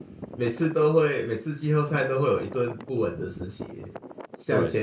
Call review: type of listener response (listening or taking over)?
listening